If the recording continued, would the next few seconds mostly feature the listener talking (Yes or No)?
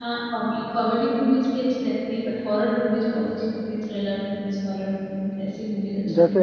Yes